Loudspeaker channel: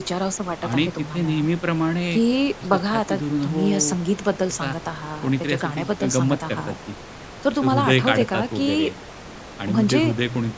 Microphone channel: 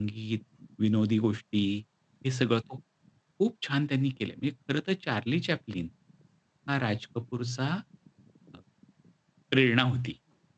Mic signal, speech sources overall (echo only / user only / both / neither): user only